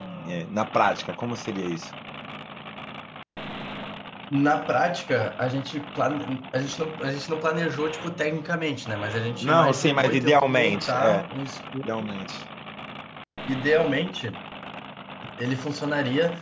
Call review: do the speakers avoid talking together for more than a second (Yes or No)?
No